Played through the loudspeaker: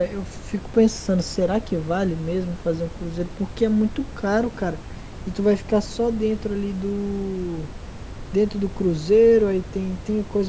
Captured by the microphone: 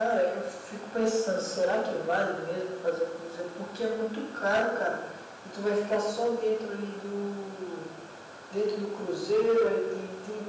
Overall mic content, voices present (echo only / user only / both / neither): echo only